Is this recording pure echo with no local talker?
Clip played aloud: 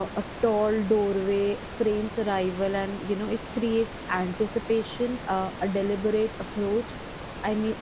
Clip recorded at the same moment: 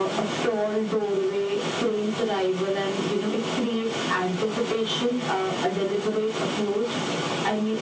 Yes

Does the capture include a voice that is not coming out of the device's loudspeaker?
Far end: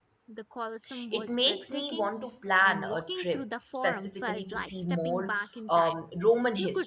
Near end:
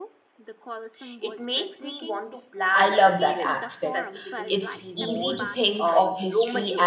Yes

